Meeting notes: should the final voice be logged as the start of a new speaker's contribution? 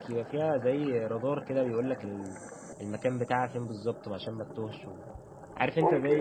No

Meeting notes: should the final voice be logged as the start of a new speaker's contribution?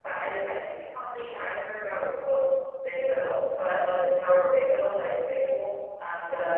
Yes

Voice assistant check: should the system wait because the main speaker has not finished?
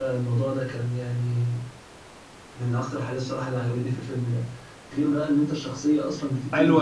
No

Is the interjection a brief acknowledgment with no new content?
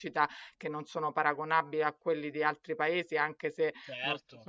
Yes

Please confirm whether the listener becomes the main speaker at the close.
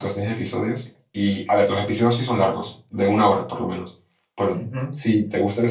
No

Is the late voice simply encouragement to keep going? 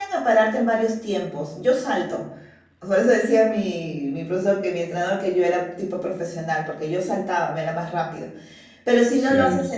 Yes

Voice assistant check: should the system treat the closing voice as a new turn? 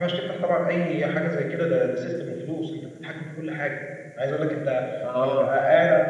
No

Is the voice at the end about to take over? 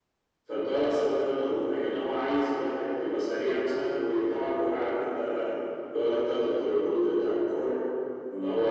No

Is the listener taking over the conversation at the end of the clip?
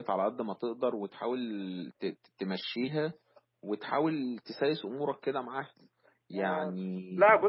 Yes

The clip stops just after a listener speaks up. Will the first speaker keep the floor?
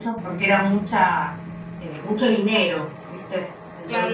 No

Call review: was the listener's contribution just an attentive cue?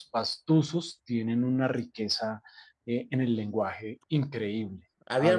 No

